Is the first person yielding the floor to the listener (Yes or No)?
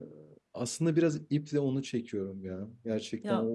No